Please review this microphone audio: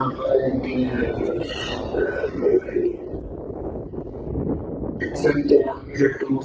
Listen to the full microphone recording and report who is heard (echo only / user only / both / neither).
echo only